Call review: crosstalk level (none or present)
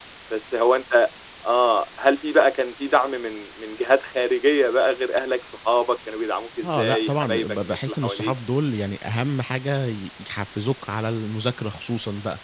present